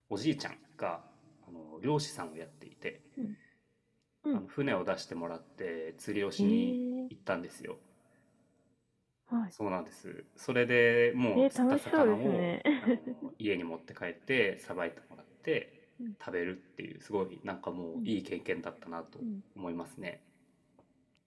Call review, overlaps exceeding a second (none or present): present